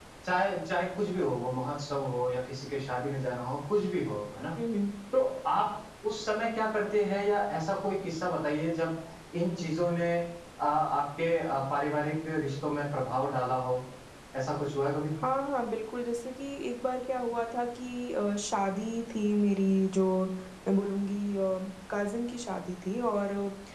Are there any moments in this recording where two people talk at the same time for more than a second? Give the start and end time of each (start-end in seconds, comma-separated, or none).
none